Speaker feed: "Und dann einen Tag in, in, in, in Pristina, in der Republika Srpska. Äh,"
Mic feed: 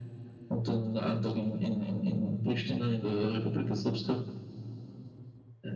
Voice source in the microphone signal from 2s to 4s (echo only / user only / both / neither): echo only